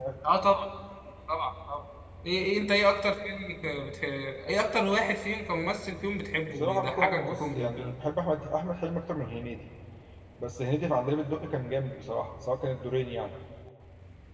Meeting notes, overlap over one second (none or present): present